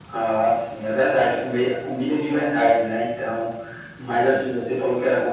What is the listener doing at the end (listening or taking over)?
listening